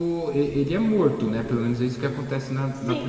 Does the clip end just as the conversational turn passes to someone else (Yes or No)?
Yes